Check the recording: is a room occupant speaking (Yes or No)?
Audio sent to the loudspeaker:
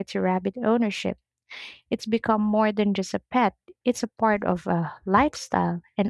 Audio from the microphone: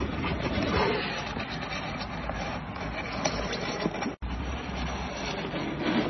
No